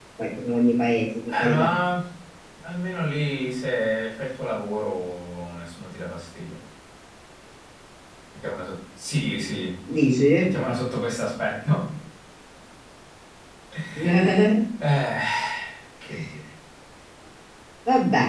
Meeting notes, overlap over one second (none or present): none